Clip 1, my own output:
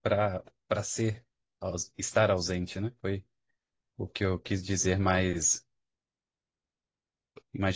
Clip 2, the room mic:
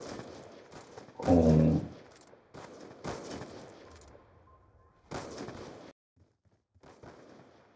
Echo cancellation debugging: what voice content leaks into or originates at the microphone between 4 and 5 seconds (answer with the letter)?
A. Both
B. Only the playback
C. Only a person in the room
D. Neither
D